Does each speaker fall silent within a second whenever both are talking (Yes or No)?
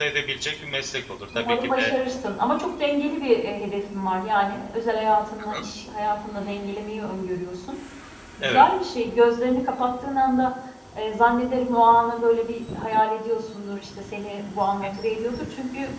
Yes